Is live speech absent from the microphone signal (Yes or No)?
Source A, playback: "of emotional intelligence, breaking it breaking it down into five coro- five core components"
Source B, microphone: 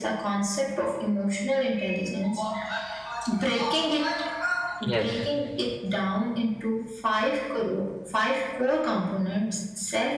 No